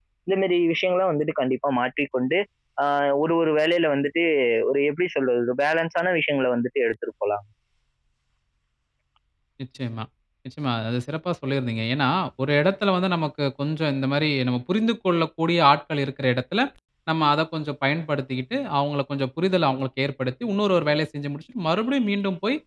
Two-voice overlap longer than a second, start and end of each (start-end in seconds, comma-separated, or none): none